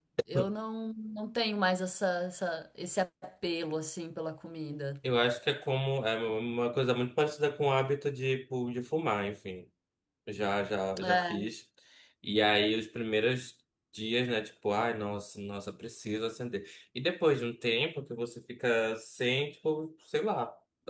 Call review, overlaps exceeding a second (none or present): none